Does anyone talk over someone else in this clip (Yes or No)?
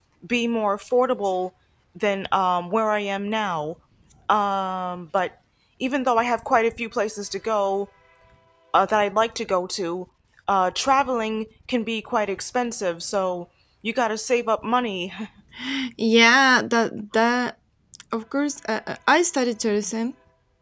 No